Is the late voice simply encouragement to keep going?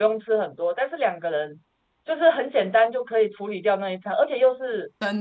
Yes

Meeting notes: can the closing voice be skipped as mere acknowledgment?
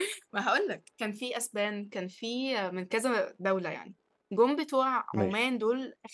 Yes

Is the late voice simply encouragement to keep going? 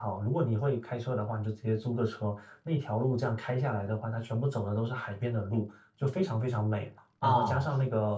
Yes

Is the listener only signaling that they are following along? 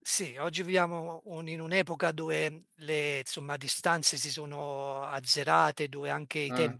Yes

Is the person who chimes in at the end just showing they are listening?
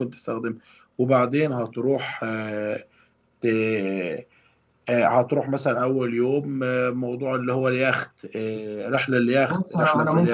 No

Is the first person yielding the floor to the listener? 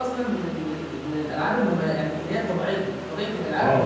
Yes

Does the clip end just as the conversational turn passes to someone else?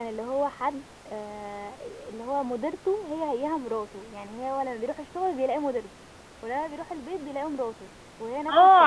Yes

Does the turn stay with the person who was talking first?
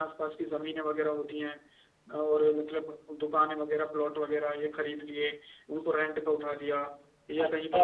No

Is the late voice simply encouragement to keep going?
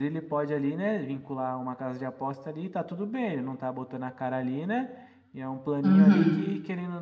Yes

